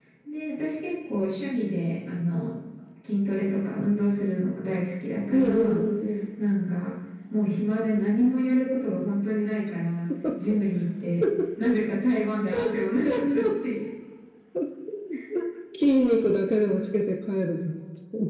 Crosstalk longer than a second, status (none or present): none